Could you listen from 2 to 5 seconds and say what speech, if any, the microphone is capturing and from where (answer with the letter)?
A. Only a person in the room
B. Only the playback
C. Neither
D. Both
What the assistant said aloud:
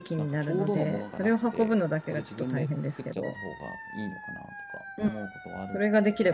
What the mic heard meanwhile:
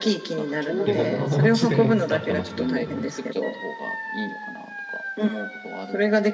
D